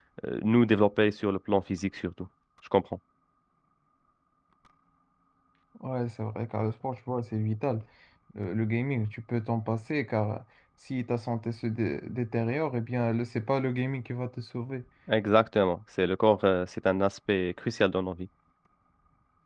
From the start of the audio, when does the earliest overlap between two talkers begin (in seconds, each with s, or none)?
none